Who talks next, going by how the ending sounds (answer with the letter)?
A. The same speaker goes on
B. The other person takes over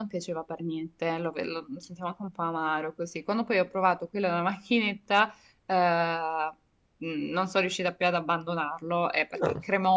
A